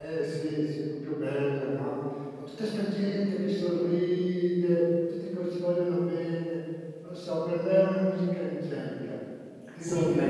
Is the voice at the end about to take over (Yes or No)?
Yes